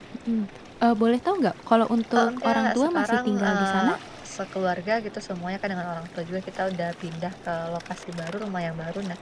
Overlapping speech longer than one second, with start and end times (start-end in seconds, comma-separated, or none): 2.1-3.9